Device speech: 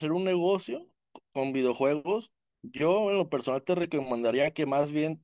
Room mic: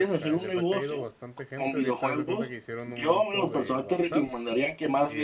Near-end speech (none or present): present